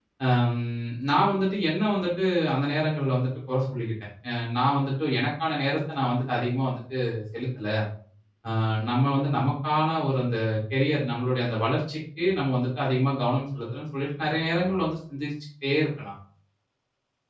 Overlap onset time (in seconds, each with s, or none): none